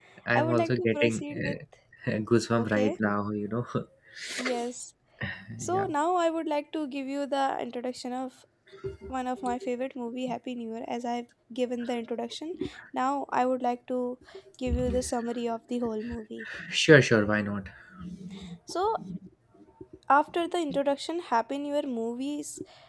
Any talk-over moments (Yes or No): Yes